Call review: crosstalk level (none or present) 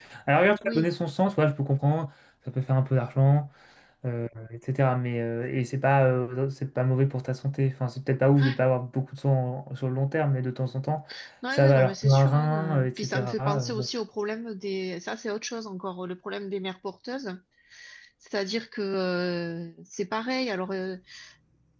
present